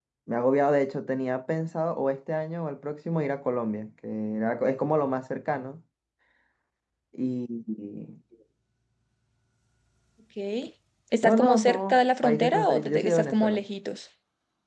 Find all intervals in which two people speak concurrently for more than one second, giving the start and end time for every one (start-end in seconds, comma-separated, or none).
11.2-13.6